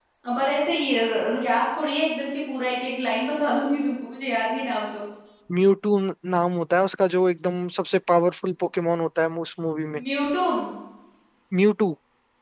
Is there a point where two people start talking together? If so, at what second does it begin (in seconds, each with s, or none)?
none